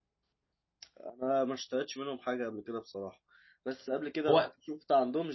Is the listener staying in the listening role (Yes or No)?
Yes